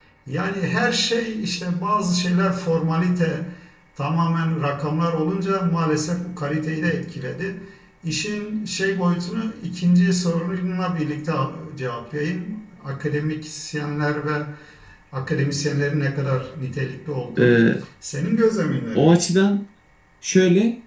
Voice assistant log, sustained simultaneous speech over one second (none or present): none